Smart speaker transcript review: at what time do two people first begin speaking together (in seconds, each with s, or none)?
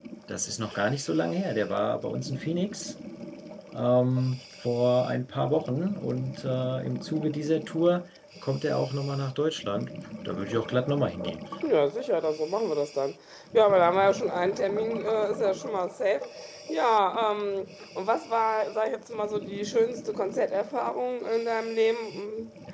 none